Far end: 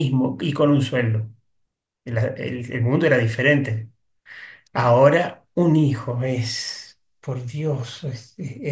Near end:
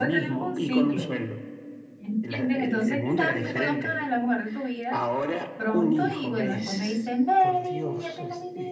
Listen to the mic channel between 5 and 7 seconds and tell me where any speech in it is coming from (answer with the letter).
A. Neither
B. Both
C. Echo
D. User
B